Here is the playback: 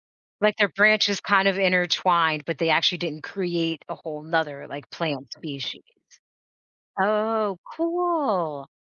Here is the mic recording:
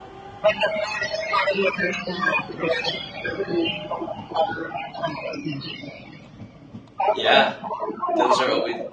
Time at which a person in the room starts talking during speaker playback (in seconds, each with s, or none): 7.1 s